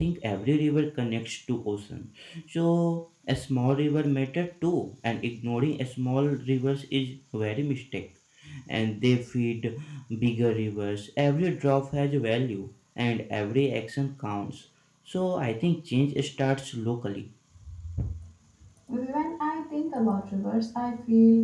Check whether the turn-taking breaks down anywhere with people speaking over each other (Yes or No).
No